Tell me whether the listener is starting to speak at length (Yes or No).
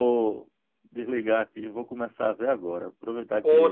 No